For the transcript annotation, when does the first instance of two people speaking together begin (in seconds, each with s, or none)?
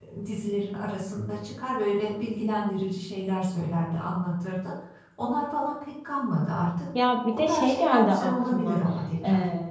7.3 s